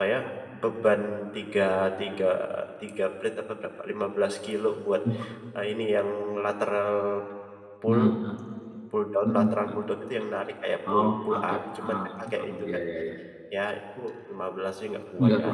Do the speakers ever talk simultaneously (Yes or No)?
Yes